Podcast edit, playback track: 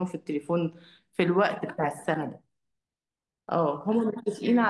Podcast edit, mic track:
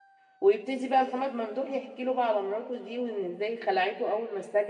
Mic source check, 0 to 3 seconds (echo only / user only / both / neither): user only